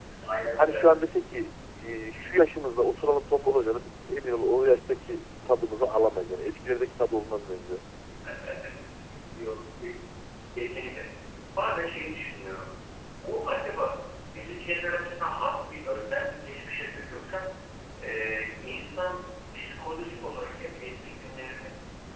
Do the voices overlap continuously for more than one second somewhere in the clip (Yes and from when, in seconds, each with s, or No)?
No